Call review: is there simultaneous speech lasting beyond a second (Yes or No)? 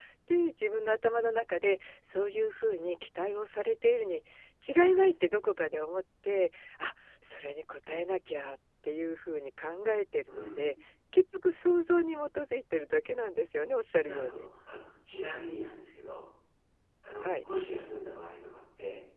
No